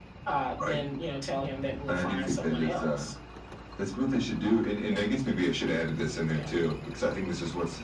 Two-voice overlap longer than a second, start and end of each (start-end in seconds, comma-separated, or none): 1.9-3.1